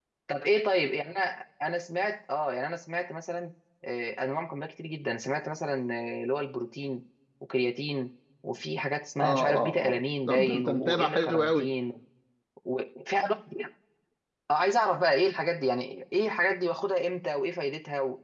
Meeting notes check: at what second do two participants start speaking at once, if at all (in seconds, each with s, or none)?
9.2 s